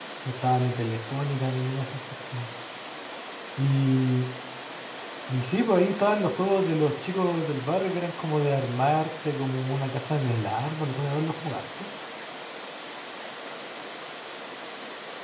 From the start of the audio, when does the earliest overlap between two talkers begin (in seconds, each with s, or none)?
none